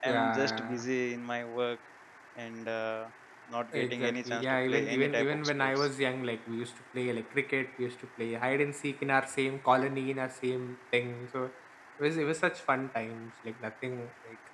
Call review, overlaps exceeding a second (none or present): present